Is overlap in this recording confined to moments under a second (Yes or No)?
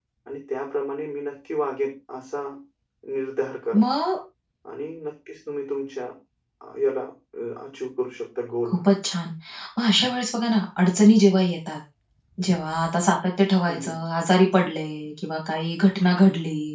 Yes